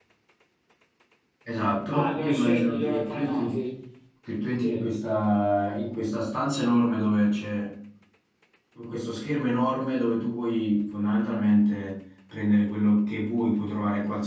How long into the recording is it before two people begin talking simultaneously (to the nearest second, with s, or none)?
2 s